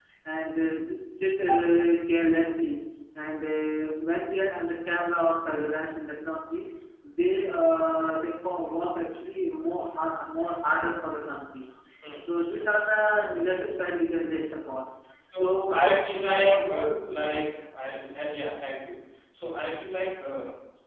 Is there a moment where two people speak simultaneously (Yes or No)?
Yes